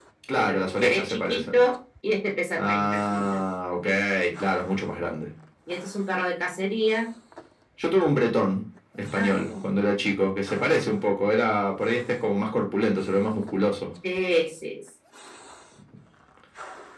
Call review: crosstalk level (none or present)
present